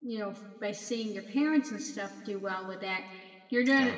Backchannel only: Yes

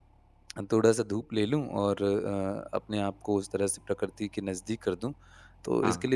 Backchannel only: Yes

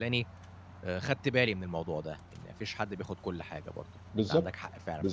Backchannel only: No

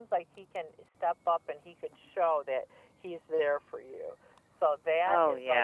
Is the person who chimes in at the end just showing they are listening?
Yes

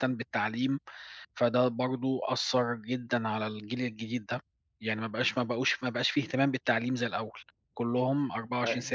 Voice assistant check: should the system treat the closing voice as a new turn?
No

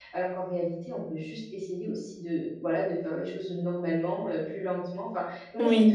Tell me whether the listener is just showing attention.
No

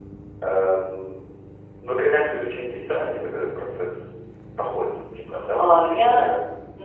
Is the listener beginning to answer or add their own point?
Yes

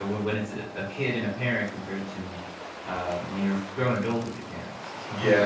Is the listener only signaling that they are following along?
No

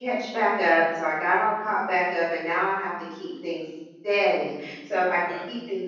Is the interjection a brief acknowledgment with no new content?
Yes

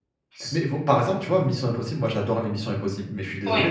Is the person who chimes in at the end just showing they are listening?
Yes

